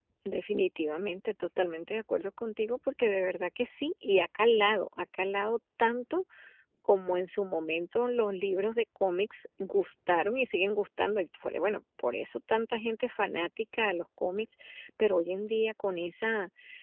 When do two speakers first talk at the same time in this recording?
none

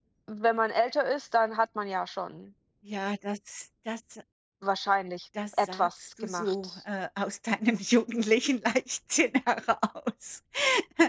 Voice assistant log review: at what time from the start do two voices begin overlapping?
5.6 s

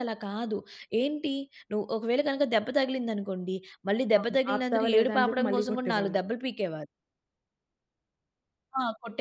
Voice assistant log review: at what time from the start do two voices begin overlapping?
4.2 s

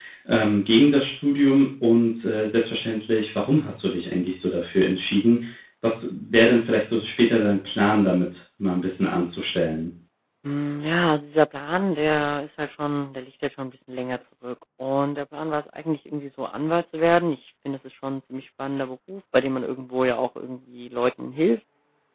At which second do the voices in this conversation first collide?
none

